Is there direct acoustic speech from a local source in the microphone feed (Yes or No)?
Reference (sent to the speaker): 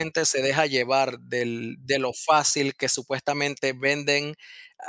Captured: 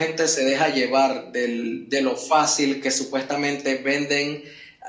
No